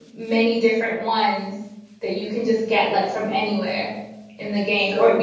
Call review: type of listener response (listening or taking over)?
listening